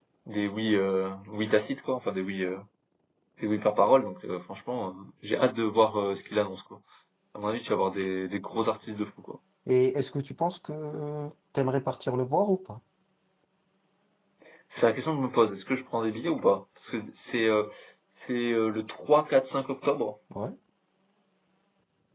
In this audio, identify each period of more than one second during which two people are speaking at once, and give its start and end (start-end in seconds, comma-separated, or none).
none